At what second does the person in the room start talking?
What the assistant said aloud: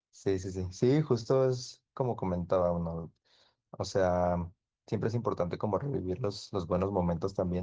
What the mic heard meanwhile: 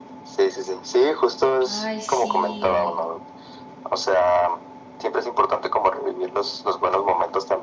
1.6 s

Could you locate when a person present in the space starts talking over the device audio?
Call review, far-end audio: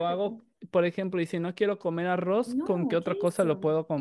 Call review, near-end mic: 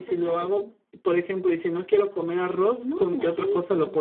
none

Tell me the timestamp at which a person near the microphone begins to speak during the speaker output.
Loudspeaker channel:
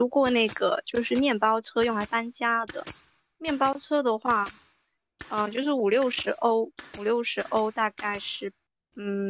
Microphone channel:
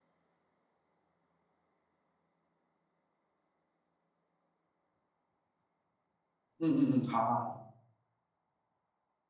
6.6 s

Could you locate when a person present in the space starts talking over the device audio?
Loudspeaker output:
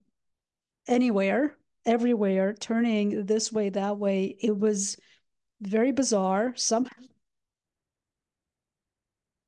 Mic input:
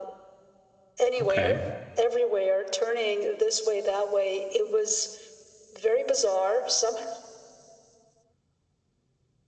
1.2 s

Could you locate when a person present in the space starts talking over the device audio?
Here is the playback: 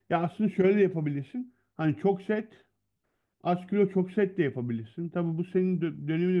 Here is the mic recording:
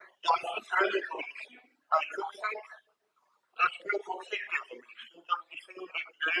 none

